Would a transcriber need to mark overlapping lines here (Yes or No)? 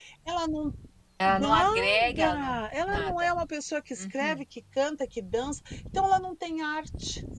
Yes